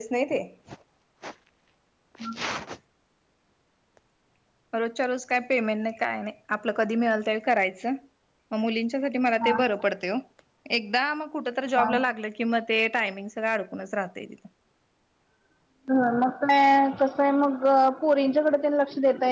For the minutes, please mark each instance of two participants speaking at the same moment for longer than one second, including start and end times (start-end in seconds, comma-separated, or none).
none